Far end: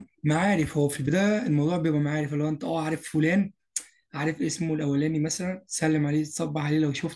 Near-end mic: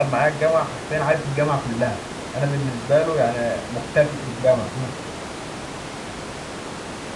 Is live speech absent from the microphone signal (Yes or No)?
No